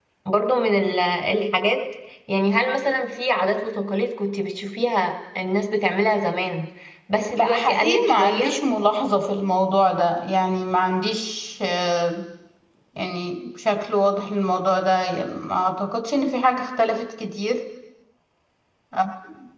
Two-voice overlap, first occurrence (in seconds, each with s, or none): 7.3 s